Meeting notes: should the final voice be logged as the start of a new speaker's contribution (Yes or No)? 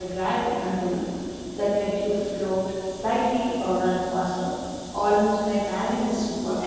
Yes